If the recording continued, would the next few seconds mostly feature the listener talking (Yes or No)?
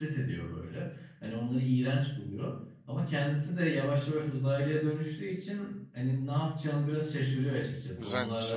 No